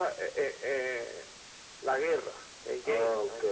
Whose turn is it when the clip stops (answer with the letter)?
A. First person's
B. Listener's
B